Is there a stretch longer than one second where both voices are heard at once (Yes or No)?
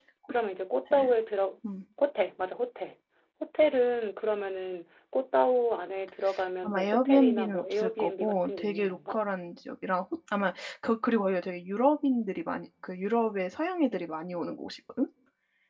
Yes